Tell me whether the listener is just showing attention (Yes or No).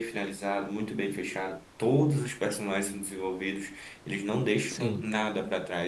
Yes